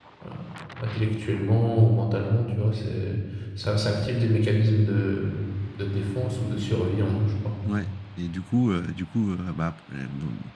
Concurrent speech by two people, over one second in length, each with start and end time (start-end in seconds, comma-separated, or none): none